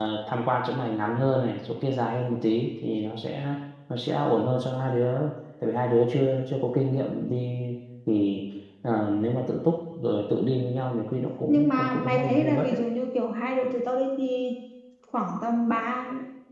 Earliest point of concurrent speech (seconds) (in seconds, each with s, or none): 11.5 s